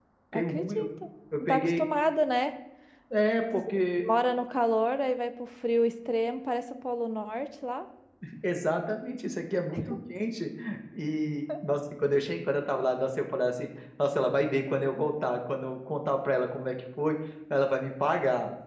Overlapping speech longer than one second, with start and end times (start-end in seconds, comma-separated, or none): none